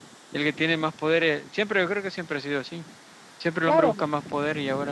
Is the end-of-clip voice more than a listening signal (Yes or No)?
No